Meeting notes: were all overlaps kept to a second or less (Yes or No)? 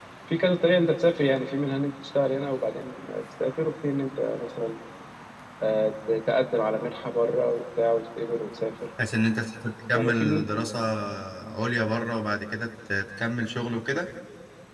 Yes